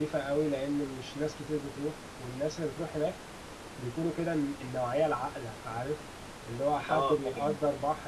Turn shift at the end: No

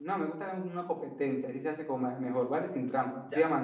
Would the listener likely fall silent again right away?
Yes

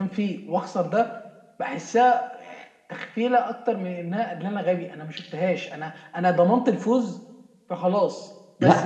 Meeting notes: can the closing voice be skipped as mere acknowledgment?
Yes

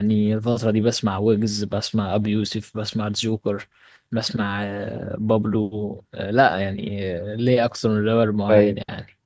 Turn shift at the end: Yes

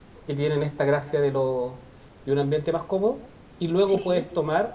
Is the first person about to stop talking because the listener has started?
No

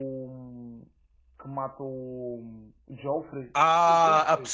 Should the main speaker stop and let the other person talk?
Yes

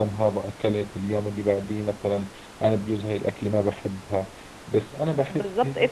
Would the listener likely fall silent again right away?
No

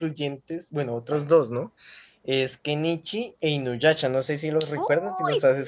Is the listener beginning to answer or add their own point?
Yes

